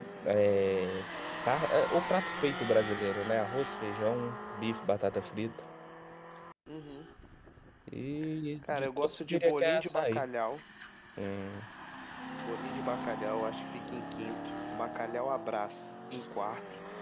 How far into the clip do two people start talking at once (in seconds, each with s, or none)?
8.6 s